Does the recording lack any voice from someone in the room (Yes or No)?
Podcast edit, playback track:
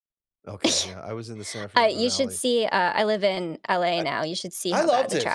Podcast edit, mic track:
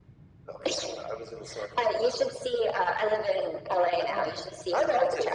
No